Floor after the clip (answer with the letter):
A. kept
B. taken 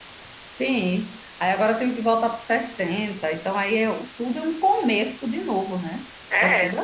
B